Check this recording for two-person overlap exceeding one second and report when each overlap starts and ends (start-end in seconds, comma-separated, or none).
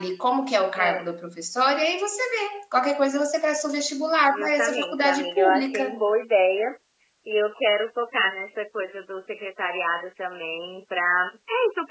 4.3-6.0